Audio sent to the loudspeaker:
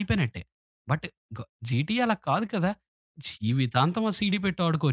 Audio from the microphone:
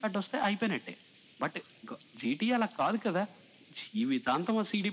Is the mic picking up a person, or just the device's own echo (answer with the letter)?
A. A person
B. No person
B